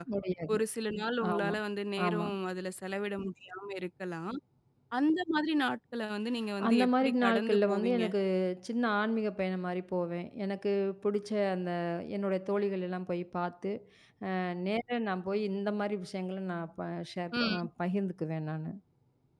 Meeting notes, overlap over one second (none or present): present